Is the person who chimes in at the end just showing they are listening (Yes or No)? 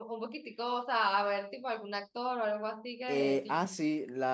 No